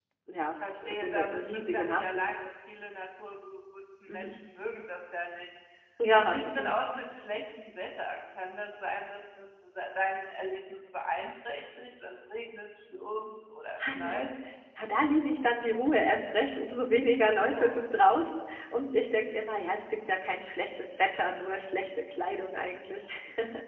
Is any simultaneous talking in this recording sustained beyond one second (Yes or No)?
Yes